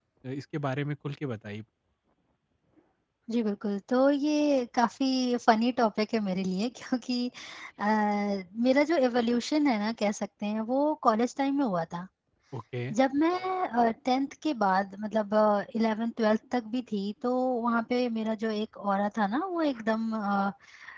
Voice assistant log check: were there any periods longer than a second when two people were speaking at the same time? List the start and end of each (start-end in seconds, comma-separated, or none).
none